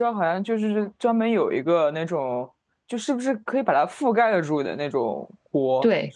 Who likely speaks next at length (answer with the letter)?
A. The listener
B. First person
A